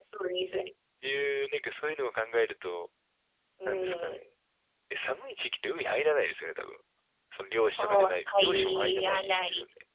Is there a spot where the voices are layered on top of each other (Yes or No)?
Yes